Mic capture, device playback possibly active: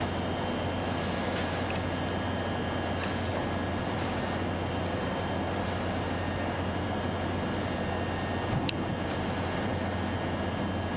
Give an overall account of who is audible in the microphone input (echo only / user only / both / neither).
neither